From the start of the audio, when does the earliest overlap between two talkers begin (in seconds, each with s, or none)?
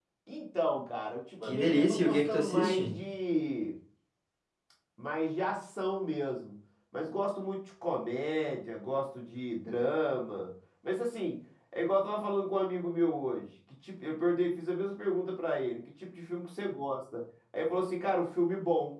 1.4 s